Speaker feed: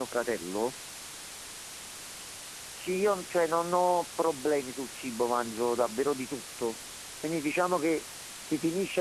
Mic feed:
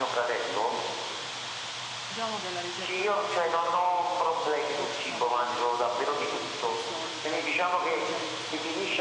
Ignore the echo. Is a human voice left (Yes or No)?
Yes